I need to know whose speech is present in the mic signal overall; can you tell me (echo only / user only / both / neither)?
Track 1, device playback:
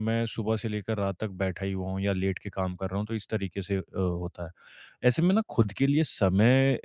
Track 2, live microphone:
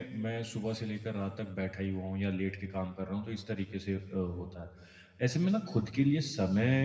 echo only